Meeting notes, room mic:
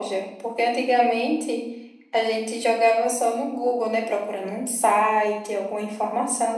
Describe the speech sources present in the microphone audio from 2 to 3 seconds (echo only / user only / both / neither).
echo only